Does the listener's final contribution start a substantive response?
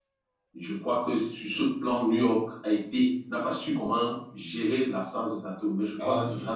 Yes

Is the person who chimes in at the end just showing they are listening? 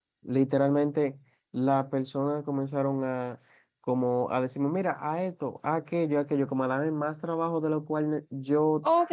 No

